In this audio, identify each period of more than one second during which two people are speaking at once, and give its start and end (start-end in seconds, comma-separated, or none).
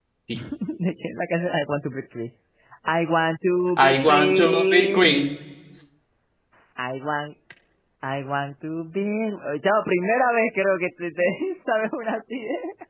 3.8-5.1